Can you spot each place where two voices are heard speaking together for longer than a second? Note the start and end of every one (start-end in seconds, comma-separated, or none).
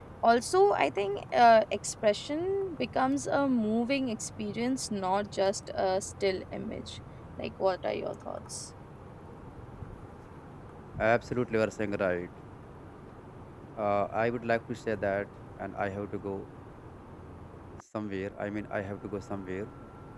none